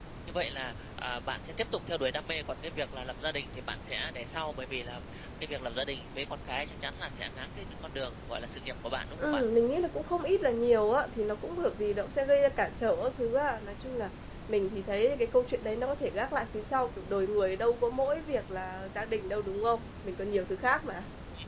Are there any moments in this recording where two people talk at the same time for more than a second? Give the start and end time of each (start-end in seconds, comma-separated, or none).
none